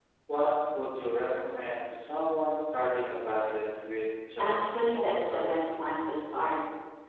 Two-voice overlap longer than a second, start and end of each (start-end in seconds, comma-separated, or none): 4.4-5.7